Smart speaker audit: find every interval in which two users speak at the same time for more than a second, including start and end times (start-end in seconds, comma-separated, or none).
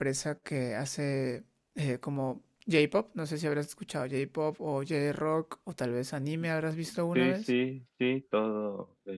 none